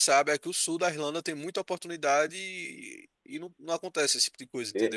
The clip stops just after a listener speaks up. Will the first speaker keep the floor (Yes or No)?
No